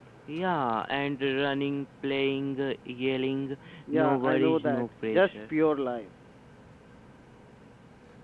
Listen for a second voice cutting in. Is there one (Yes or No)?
Yes